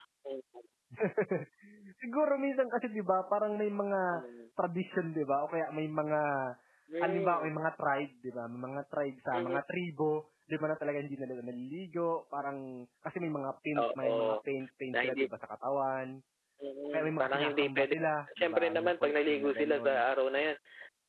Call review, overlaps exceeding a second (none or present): present